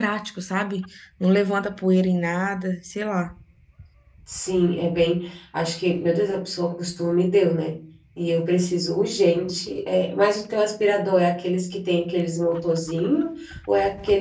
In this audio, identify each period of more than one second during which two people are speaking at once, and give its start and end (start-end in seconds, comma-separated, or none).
none